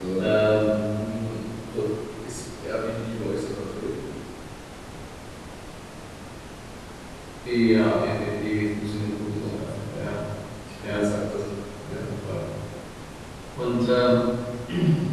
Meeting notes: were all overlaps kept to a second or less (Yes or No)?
Yes